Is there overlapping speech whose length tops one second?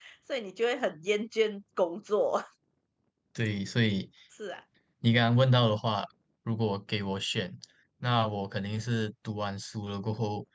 No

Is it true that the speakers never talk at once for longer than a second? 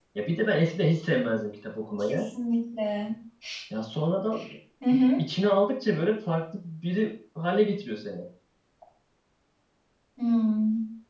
Yes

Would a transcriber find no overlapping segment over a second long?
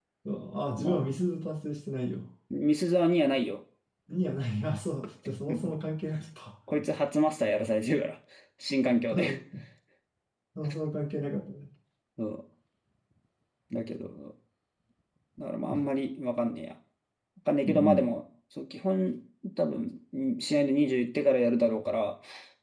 Yes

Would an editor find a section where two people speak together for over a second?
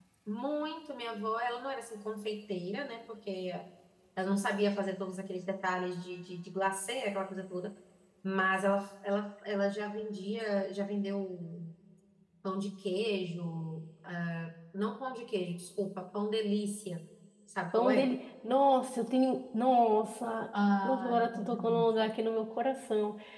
Yes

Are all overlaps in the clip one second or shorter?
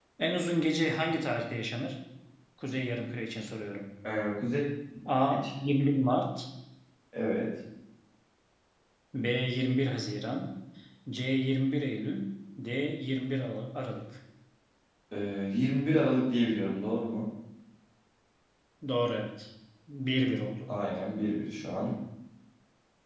Yes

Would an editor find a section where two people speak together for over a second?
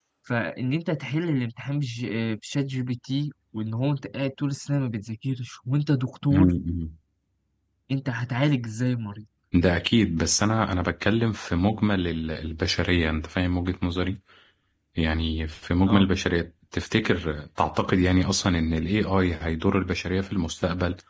No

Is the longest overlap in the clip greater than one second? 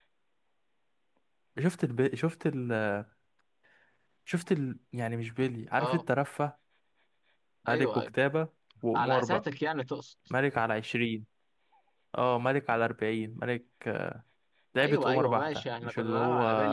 Yes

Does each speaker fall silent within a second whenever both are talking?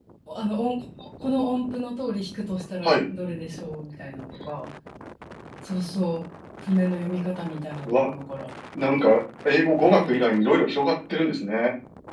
Yes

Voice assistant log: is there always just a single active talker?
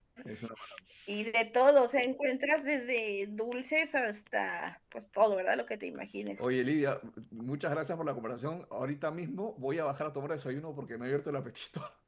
Yes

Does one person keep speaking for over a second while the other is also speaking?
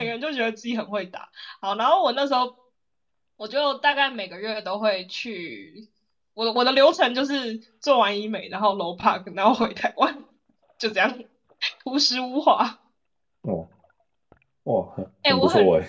No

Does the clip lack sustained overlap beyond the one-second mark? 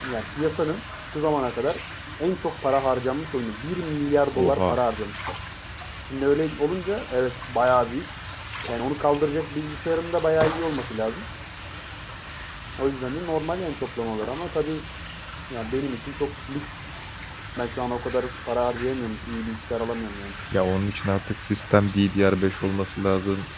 Yes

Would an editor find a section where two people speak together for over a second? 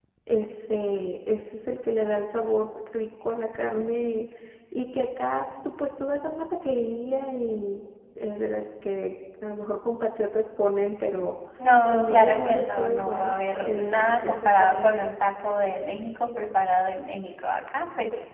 Yes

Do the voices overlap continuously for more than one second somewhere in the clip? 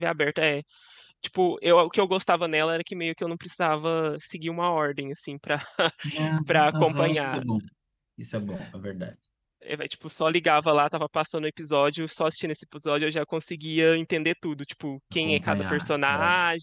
Yes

